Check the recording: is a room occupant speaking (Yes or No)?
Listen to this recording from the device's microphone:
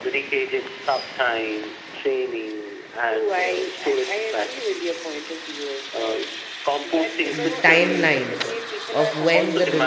Yes